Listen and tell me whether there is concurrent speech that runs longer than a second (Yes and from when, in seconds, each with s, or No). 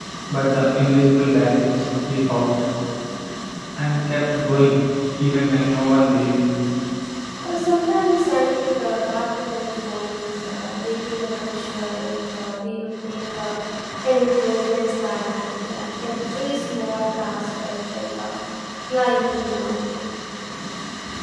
No